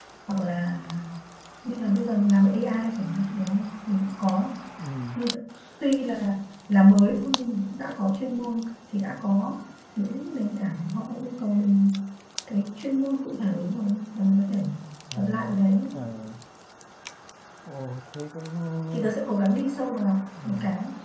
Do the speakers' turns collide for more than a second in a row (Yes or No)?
No